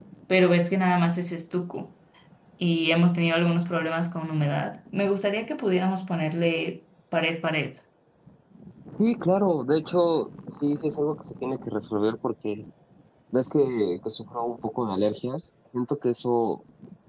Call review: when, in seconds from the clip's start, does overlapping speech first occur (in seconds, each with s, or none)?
none